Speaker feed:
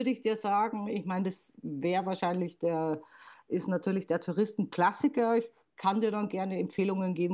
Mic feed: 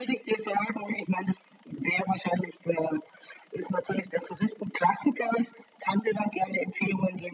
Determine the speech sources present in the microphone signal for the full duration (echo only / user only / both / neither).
echo only